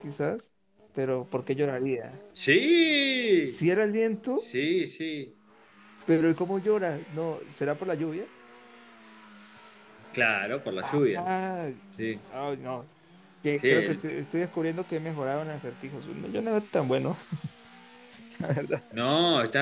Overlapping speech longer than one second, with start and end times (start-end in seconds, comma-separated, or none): none